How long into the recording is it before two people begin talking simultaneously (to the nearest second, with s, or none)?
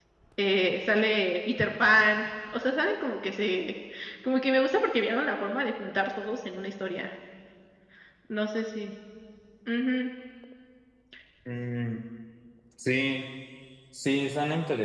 none